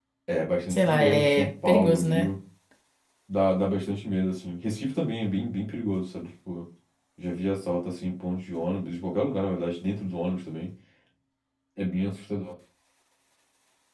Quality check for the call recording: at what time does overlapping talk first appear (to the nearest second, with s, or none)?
1 s